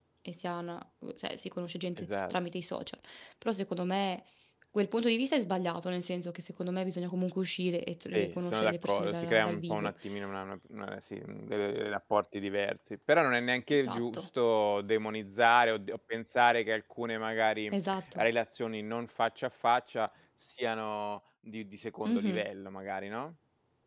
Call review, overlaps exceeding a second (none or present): present